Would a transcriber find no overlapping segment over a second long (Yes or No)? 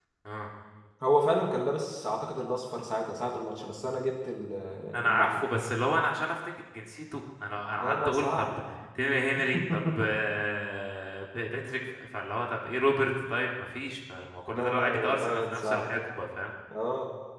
No